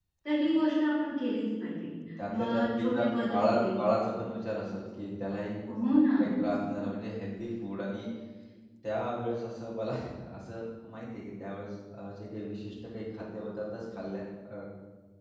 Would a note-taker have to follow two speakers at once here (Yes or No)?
Yes